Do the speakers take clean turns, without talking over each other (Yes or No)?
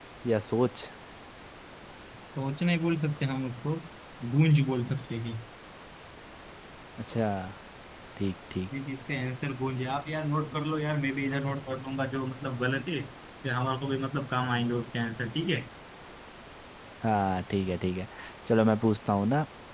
Yes